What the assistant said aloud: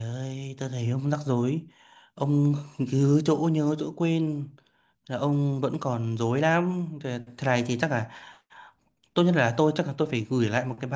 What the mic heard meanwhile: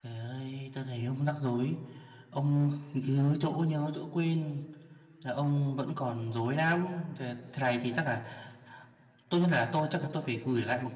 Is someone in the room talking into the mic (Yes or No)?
No